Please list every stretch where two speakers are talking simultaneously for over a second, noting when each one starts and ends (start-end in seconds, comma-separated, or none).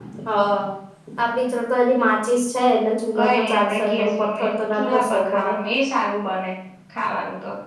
3.2-5.5